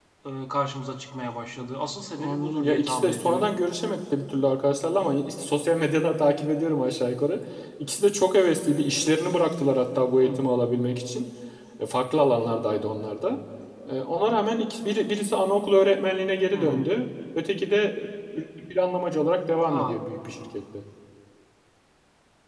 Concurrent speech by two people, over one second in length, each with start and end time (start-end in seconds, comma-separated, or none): 2.2-3.5